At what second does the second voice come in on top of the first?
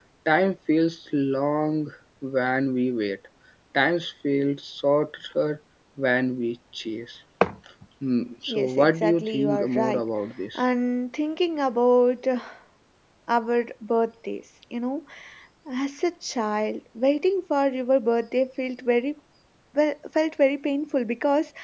8.5 s

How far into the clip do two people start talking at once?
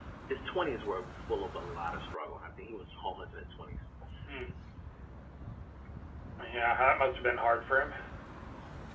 none

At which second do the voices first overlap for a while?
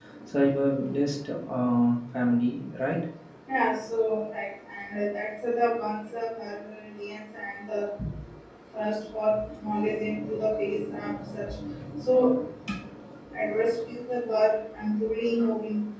none

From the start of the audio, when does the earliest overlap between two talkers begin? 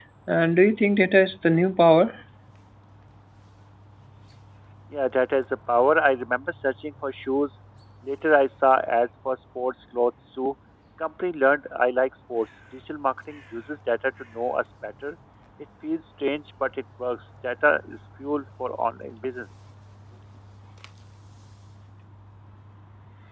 none

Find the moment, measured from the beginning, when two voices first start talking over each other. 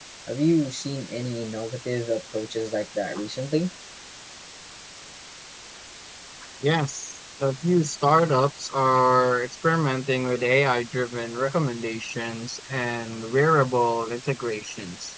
none

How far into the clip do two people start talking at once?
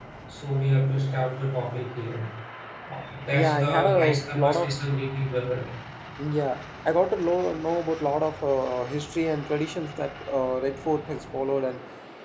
3.3 s

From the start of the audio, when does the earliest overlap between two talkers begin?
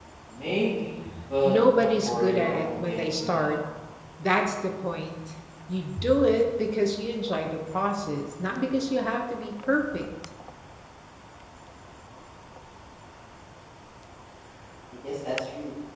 1.4 s

